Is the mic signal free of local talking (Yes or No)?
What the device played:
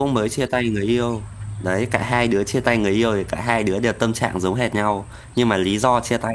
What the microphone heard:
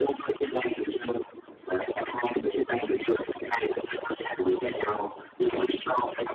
Yes